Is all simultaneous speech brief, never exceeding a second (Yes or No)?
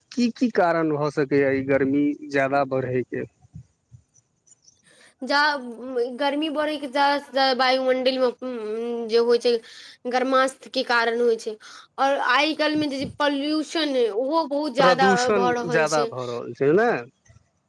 No